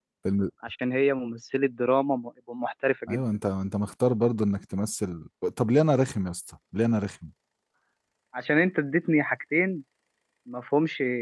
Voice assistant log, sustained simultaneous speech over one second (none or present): none